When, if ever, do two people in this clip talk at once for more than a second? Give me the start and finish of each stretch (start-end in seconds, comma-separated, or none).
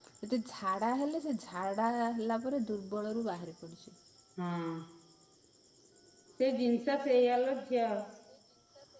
none